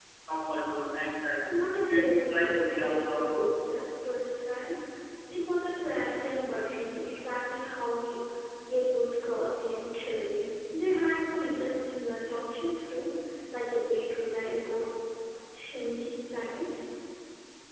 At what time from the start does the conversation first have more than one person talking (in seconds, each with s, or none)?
1.9 s